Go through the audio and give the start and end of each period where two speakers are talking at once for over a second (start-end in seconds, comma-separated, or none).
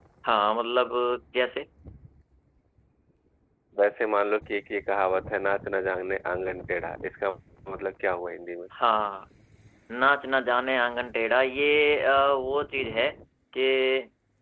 none